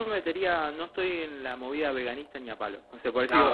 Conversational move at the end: listening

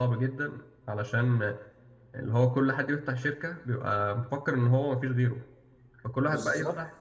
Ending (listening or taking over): listening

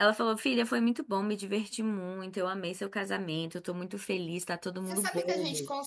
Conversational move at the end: taking over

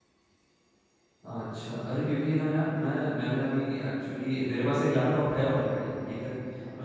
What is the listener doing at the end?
listening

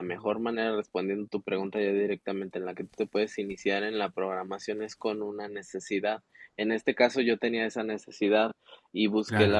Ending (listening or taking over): listening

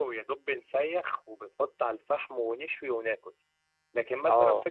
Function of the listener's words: listening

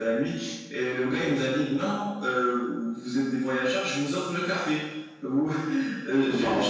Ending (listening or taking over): listening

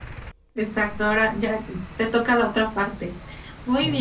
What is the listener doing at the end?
listening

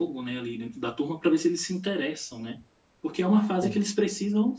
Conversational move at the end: listening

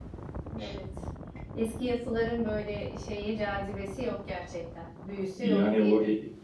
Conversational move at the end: taking over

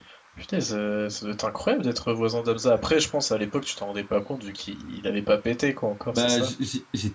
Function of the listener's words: taking over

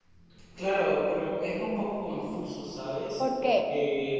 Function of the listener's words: listening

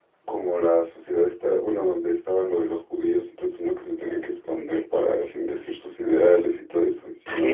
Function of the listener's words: taking over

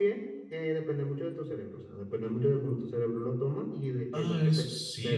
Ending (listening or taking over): taking over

